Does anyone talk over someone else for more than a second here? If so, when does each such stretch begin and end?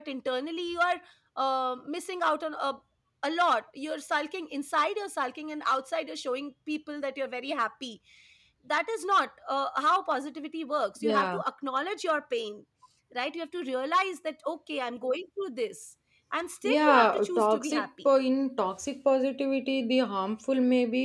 16.6-17.9

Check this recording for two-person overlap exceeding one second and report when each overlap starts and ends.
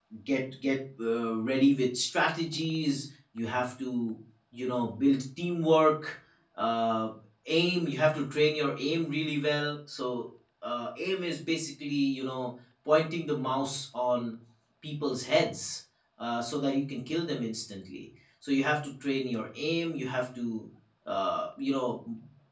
none

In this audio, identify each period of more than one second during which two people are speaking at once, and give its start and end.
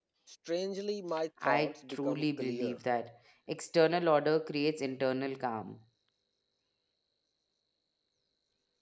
1.4-2.8

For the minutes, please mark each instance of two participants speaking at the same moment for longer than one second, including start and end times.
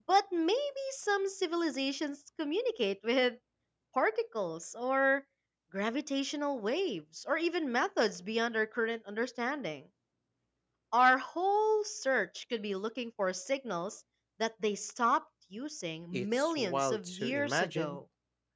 16.1-18.0

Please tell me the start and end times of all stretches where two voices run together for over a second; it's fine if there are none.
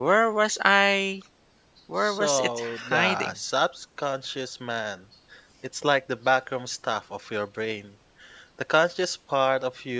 2.0-3.3

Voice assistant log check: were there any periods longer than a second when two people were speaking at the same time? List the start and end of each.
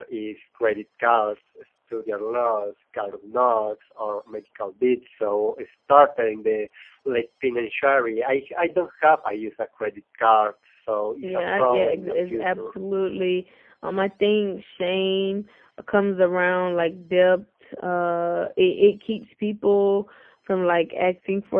11.2-12.7

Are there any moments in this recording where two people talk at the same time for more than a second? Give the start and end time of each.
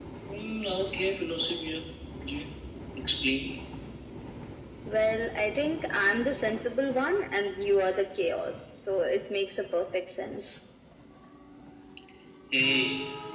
none

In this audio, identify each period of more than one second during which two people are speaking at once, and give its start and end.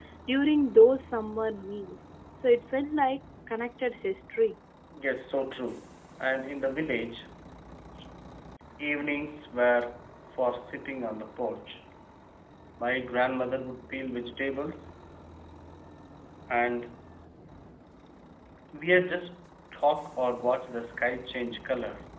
none

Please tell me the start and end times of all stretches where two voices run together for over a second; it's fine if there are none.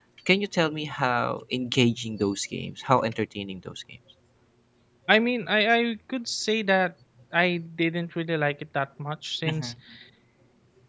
none

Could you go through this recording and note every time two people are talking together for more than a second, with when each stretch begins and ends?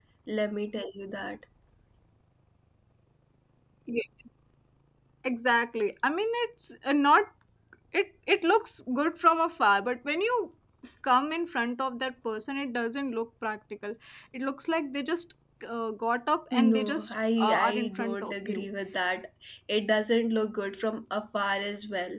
16.5-18.6

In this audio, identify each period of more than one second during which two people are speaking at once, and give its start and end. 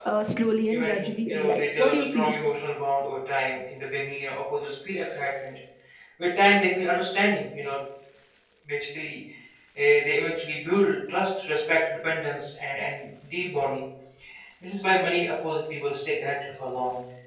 0.7-2.3

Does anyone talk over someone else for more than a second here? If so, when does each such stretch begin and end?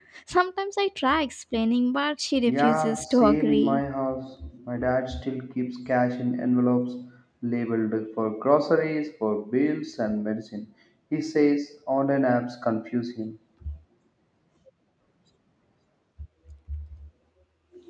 2.5-3.9

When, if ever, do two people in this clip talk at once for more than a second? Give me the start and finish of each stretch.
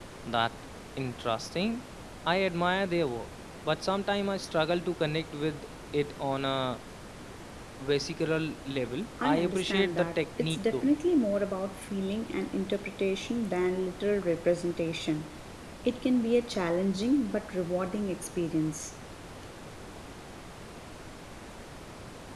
9.2-10.9

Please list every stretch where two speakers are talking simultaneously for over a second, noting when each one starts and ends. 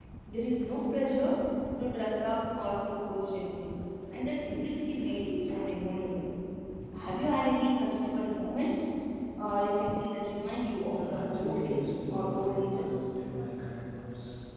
10.9-13.0

